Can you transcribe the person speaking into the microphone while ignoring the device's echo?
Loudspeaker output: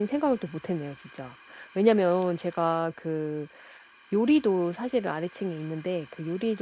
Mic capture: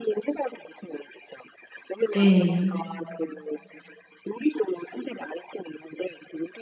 네.

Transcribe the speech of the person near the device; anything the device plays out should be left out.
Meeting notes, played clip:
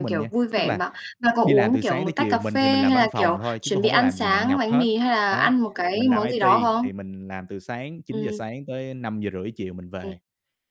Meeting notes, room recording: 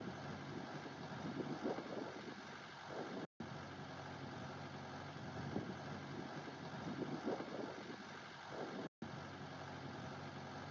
none

